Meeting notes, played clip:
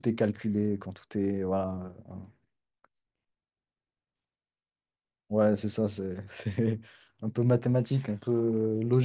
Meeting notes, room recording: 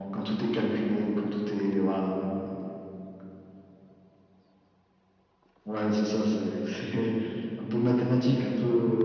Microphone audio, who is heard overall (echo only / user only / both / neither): echo only